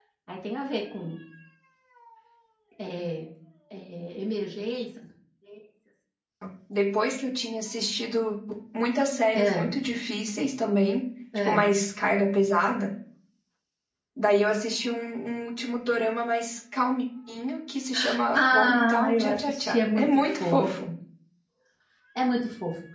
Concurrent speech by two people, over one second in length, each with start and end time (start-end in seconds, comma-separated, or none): 18.3-20.9